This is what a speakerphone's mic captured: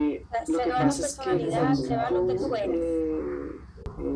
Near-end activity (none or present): present